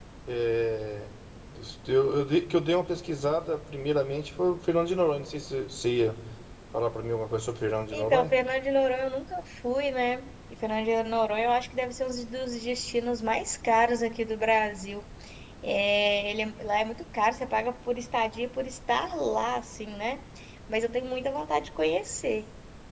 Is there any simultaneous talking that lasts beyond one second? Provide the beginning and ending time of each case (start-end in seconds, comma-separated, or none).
none